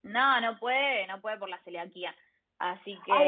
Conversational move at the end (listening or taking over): taking over